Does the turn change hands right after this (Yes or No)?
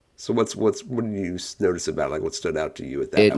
Yes